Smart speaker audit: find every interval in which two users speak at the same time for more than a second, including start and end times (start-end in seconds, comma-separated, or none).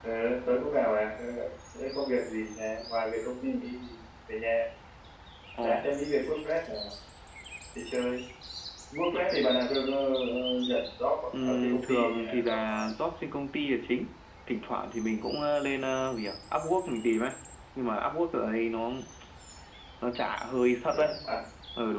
11.4-12.9